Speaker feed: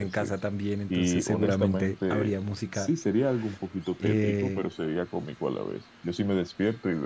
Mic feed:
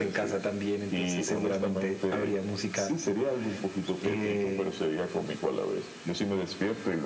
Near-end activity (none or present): none